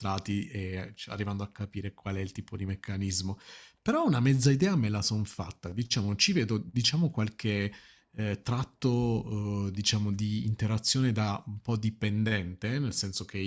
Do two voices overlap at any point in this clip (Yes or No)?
No